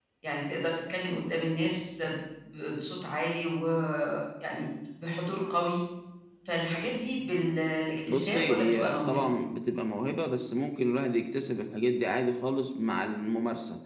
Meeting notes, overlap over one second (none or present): present